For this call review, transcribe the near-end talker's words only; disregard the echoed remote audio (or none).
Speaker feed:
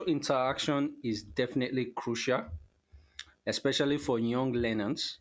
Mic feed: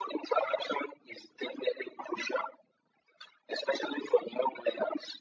none